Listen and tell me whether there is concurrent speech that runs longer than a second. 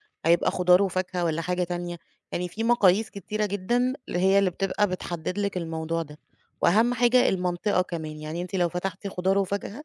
No

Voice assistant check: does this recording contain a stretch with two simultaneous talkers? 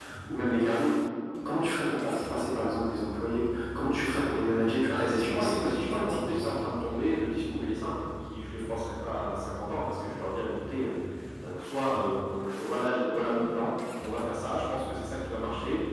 Yes, from 4.9 s

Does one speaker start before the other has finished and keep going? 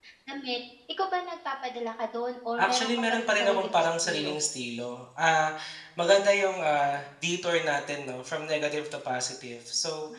Yes, from 2.6 s

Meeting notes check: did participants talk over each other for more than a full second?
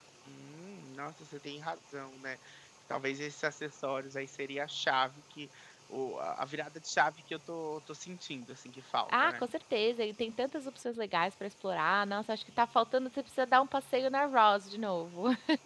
No

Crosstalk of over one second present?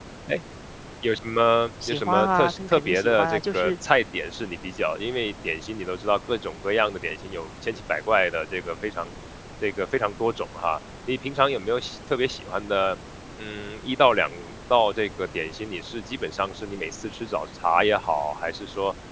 Yes, from 1.9 s

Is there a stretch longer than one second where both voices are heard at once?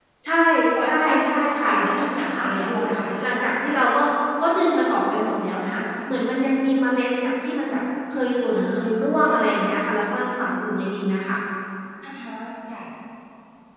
Yes, from 0.8 s

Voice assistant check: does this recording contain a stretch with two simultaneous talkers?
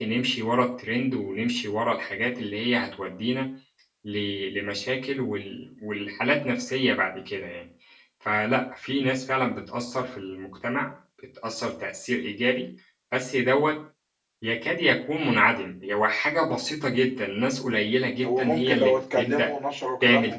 Yes, from 18.2 s

